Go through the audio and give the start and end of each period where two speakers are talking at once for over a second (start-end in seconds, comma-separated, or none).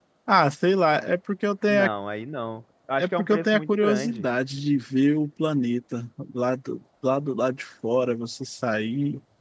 3.0-4.2